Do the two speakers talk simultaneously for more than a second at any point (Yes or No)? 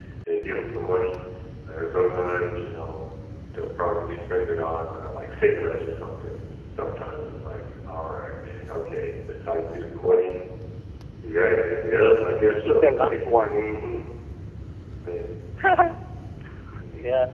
Yes